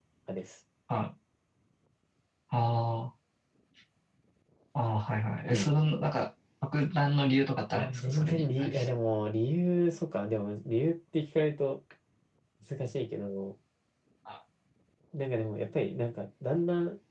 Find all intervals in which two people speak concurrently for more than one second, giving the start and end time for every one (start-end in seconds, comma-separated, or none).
7.8-9.0